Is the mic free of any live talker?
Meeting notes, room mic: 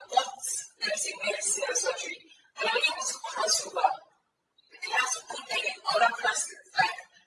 Yes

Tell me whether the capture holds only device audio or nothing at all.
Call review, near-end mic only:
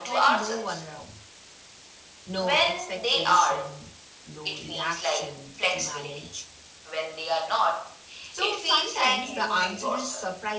No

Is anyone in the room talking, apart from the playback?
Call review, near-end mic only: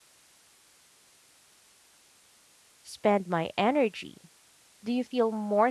Yes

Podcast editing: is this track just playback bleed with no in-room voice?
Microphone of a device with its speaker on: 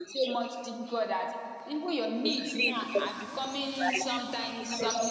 No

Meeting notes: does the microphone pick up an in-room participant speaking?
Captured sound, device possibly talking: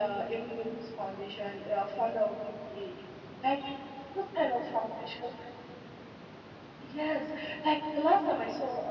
No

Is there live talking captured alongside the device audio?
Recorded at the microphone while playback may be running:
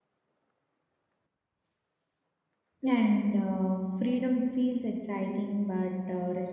Yes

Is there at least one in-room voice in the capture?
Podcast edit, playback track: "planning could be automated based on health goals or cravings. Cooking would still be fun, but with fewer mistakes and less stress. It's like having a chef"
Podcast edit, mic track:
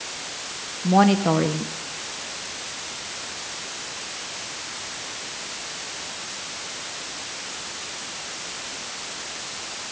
Yes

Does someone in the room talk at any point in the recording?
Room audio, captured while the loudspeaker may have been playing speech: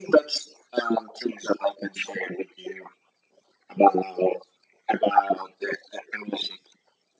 No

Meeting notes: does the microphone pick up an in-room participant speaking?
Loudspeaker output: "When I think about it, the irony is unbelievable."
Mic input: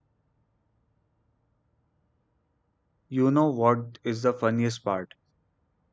Yes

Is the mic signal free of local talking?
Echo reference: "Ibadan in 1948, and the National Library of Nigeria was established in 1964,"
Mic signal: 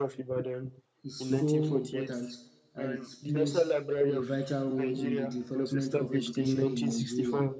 No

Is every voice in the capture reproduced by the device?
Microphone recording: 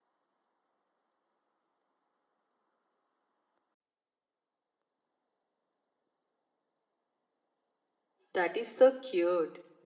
No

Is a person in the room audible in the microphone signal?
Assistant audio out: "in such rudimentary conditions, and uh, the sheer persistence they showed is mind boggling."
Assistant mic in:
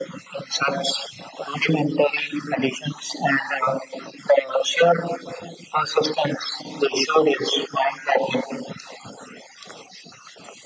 No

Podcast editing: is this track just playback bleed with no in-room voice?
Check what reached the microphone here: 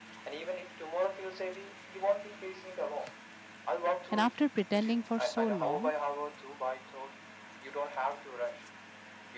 No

